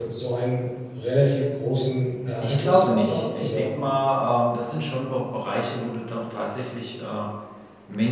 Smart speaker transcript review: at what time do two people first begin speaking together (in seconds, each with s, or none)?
2.4 s